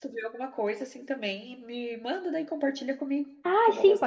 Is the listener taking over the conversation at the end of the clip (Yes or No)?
Yes